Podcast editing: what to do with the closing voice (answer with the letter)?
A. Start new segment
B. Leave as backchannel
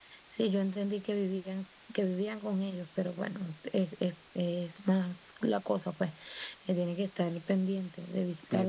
B